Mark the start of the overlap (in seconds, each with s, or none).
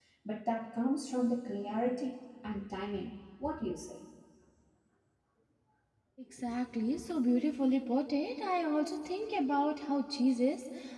none